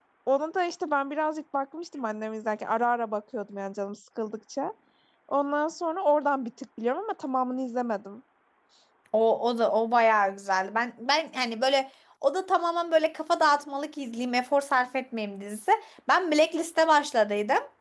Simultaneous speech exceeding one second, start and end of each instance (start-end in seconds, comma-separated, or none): none